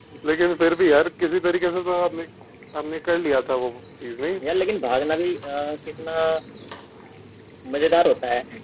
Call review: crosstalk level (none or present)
none